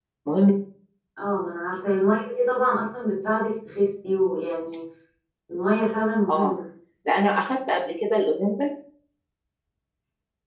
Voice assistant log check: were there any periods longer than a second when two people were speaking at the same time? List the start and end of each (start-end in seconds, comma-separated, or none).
none